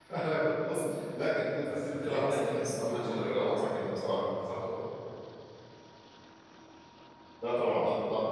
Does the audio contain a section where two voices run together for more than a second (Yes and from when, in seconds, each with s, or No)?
Yes, from 1.6 s